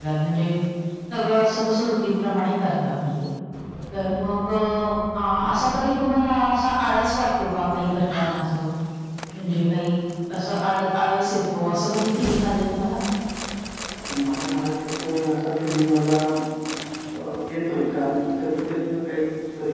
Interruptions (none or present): none